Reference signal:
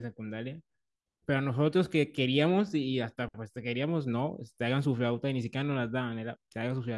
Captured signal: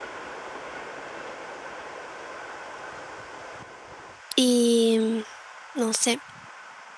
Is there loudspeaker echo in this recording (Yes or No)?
No